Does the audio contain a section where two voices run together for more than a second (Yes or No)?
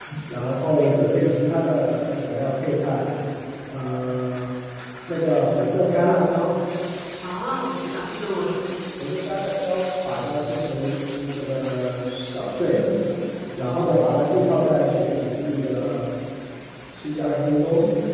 No